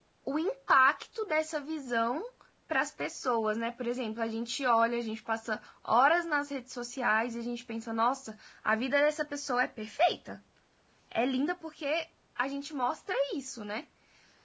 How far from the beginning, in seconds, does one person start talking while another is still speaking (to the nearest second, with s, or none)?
none